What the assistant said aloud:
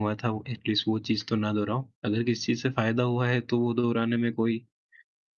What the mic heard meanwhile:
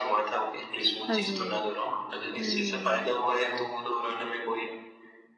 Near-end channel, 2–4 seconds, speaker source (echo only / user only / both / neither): both